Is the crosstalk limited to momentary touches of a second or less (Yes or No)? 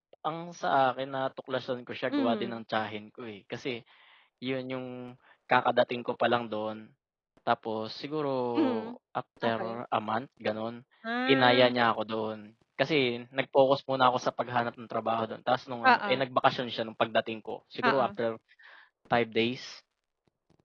Yes